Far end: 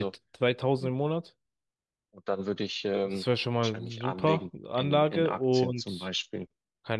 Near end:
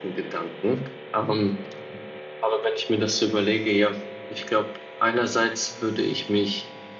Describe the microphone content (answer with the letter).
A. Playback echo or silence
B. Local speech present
B